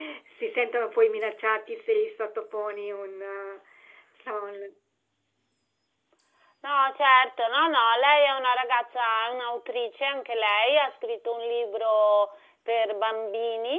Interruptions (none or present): none